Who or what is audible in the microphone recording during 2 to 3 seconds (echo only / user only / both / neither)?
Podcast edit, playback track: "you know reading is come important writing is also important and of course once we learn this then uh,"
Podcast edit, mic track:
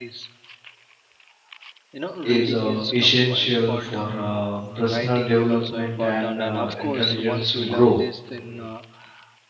both